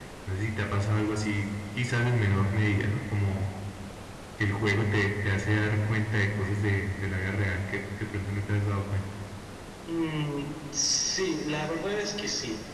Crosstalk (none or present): none